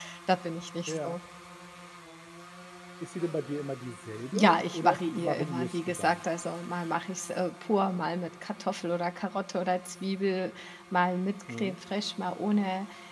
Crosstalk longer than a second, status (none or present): present